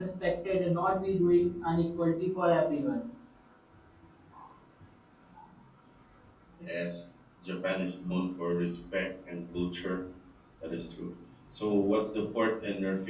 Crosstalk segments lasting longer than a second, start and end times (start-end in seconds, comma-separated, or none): none